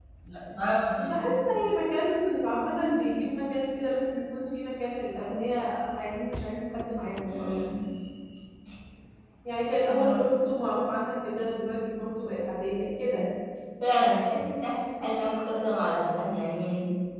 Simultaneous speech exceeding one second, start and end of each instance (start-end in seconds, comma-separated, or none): none